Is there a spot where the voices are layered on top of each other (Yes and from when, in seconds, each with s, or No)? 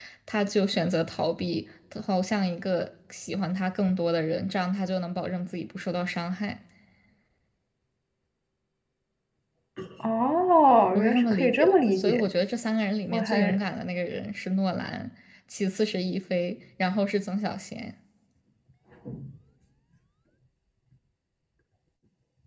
Yes, from 10.9 s